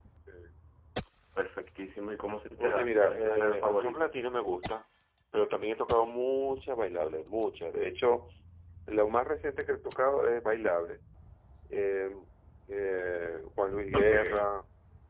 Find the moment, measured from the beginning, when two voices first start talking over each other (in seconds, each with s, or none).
2.6 s